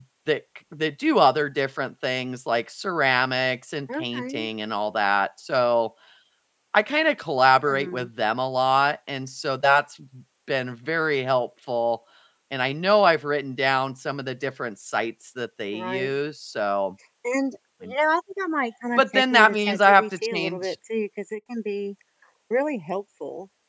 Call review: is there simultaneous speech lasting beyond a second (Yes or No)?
Yes